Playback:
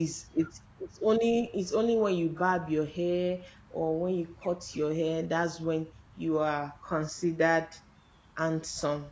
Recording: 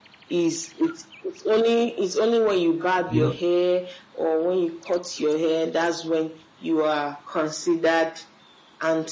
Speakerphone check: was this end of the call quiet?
No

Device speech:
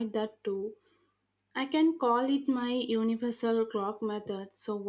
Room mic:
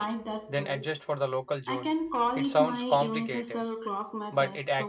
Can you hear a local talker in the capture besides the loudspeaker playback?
Yes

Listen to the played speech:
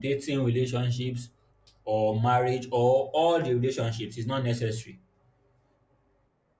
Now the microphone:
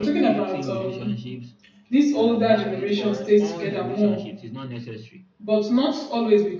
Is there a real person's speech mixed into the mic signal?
Yes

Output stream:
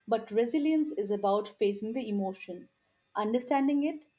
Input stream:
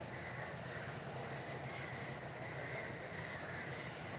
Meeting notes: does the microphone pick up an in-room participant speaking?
No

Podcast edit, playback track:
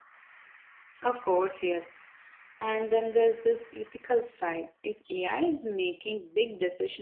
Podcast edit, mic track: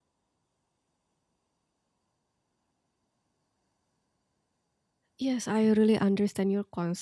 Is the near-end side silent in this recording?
No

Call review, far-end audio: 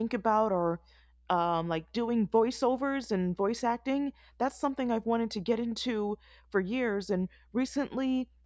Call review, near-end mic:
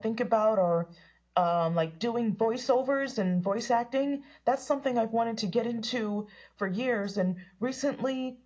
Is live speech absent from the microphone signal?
Yes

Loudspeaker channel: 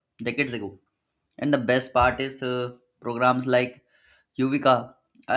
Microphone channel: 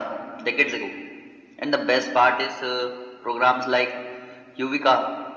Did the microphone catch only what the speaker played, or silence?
Yes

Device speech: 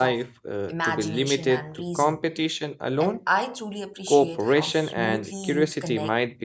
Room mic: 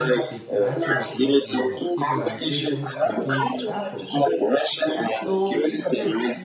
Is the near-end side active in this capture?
Yes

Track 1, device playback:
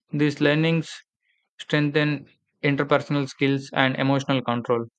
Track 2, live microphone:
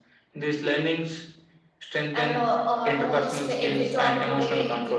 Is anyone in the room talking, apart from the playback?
Yes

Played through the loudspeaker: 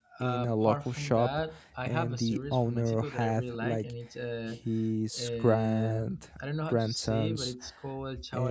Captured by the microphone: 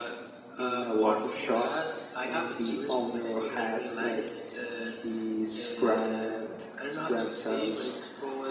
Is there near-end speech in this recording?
No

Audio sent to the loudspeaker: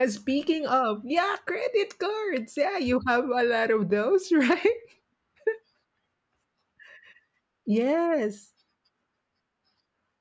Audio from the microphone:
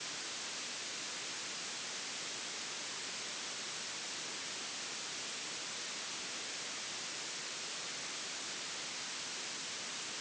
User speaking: No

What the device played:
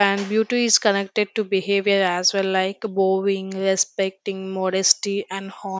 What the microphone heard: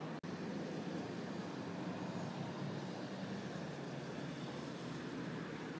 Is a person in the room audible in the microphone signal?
No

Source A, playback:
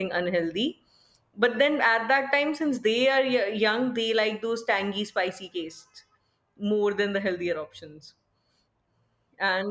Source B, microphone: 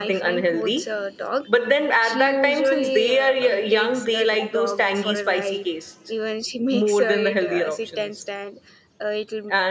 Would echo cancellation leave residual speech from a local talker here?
Yes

